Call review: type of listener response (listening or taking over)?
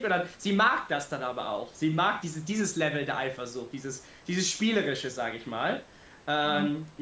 listening